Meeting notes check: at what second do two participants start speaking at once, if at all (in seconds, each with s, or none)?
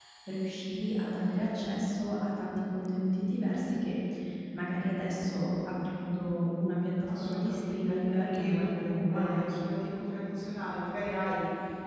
7.1 s